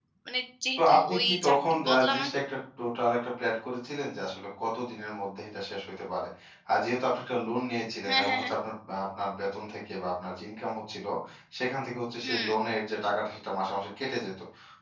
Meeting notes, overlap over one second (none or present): present